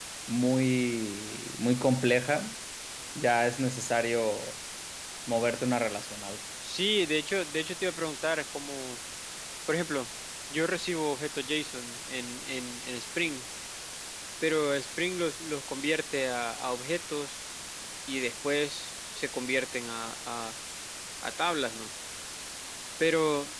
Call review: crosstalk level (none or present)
none